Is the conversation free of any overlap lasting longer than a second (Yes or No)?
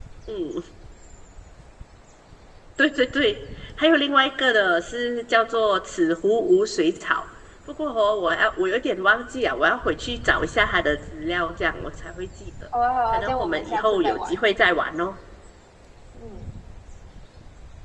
No